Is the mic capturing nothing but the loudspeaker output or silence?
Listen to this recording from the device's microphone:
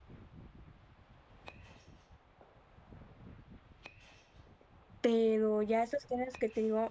No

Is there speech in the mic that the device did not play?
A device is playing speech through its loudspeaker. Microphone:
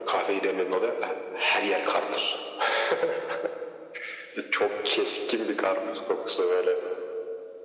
No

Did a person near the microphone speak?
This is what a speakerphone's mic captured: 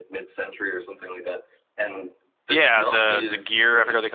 Yes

